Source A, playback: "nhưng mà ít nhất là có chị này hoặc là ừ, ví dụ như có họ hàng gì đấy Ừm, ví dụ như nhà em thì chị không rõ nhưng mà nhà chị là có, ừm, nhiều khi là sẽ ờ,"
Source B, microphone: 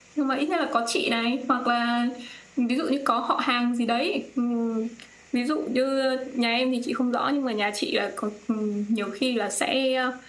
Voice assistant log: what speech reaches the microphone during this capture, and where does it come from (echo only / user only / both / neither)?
echo only